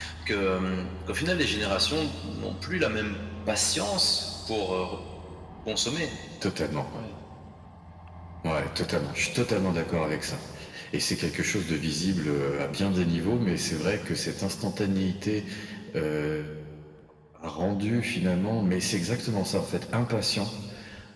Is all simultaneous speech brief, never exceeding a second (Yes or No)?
Yes